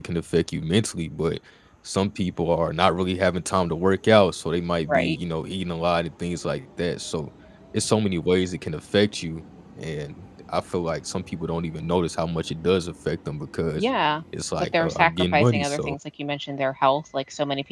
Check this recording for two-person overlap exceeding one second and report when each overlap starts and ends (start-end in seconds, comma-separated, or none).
14.5-15.9